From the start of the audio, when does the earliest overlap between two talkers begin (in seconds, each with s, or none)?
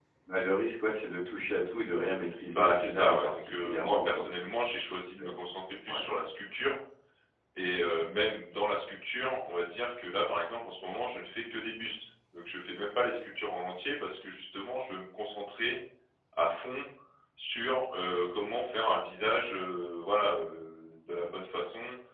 2.5 s